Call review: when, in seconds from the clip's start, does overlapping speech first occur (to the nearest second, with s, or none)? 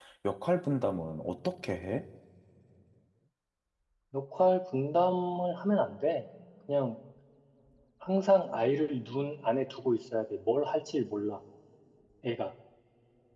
none